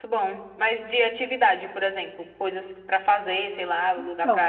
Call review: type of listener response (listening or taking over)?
taking over